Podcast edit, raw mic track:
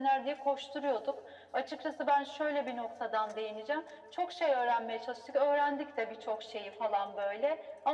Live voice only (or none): none